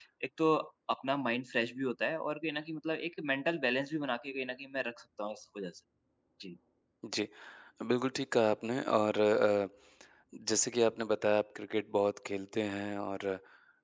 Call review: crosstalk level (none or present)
none